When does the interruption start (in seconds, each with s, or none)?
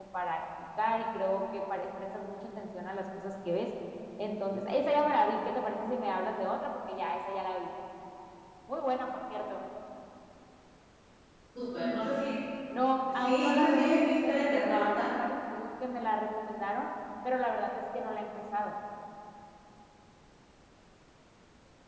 13.1 s